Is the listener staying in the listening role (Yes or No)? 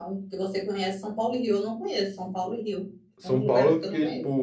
No